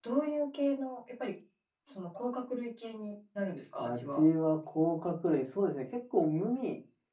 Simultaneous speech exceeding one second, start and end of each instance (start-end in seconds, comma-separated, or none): none